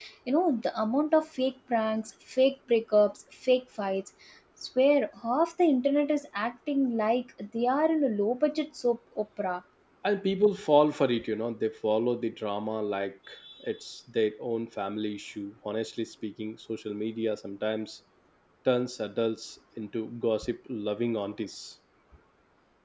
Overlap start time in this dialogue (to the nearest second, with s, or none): none